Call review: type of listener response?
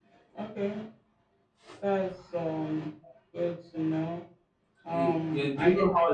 taking over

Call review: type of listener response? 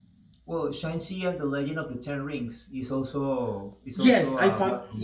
taking over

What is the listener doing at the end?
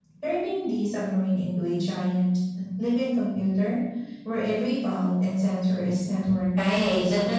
taking over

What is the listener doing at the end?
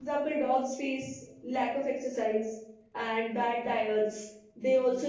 listening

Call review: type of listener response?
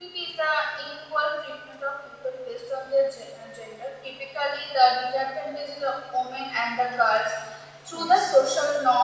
listening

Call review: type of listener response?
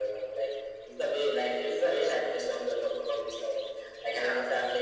listening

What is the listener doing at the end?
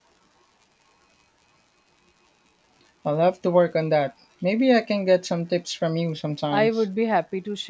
taking over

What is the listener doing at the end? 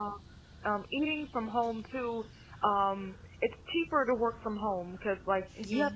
listening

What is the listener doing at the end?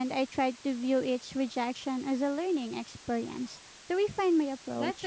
taking over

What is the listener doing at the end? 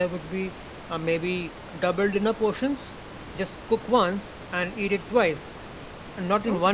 listening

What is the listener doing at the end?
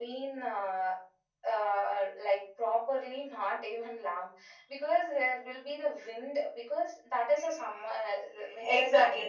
taking over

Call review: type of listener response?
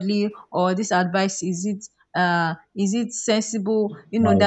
listening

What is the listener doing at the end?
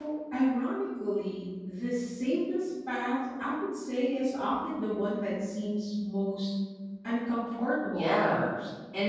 taking over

